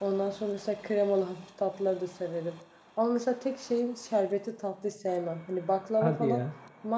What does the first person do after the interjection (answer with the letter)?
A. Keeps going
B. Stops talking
A